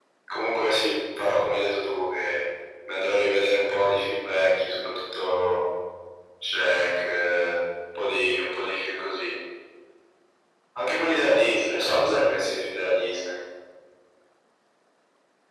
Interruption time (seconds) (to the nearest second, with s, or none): none